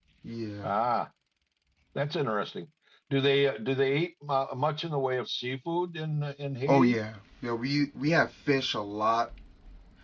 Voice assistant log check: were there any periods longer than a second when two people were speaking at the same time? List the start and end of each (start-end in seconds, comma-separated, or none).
none